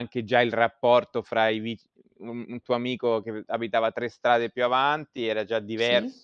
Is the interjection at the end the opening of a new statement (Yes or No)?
No